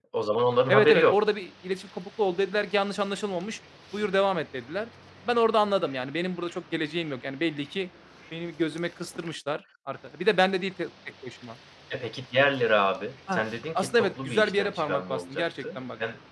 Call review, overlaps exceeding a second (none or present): present